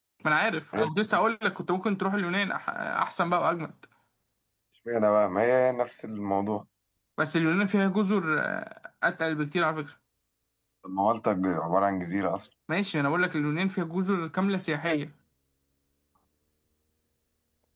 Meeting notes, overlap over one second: none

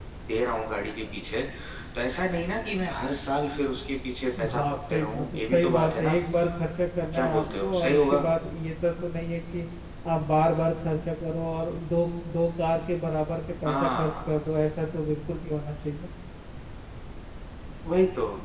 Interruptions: present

